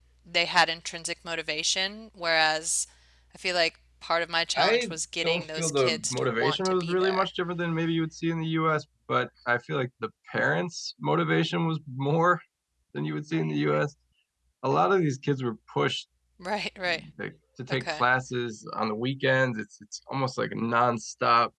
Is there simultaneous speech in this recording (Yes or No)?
Yes